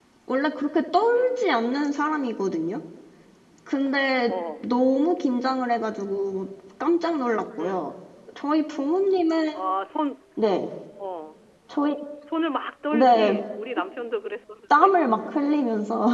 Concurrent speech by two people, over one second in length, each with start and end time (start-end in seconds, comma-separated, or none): none